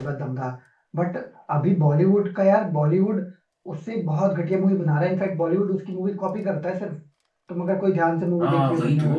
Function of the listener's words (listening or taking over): taking over